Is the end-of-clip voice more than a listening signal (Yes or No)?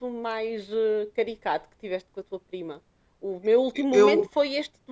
No